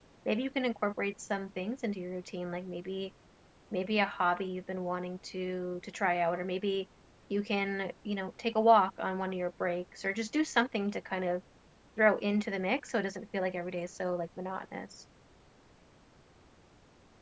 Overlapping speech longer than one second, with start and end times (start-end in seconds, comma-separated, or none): none